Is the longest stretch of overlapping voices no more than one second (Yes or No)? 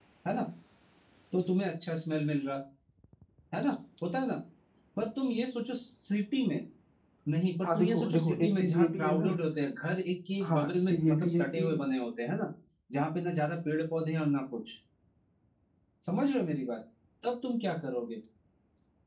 No